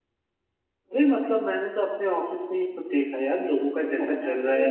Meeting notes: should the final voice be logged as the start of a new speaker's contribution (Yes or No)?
No